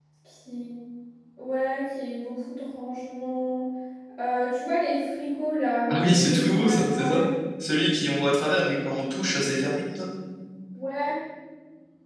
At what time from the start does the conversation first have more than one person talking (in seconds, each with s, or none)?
5.9 s